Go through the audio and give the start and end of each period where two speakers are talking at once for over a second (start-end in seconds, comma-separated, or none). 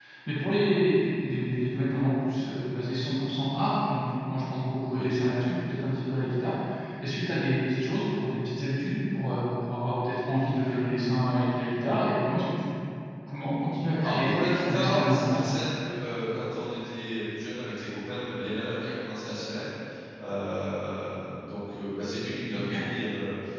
14.0-15.4